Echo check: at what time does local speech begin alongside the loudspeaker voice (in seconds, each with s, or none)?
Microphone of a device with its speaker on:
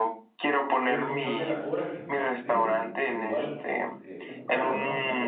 0.8 s